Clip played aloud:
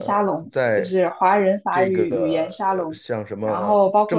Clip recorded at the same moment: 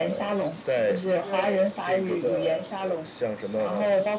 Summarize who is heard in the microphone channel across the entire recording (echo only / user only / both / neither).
both